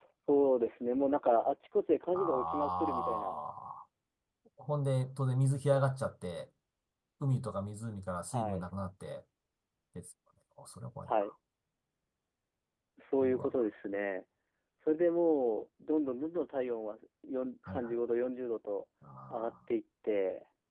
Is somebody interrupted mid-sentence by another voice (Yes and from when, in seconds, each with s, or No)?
Yes, from 2.1 s